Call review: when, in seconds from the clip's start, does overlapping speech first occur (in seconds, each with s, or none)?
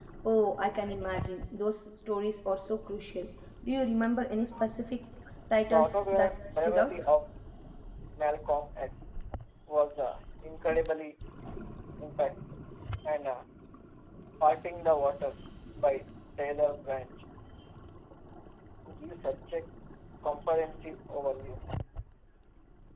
5.7 s